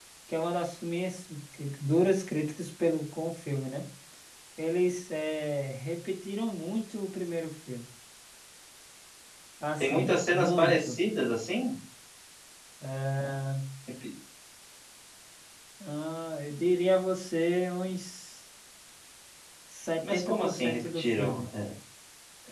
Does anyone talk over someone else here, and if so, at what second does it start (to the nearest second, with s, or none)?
10 s